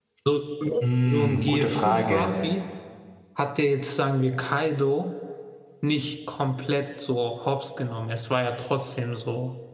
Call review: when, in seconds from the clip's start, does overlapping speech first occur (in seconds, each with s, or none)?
1.0 s